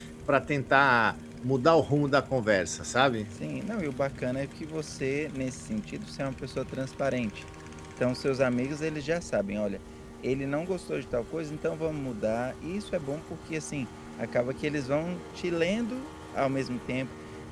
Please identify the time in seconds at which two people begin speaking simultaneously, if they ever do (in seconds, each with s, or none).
none